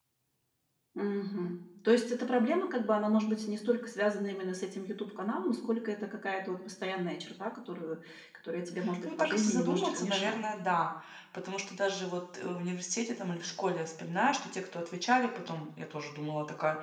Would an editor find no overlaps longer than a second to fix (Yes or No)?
No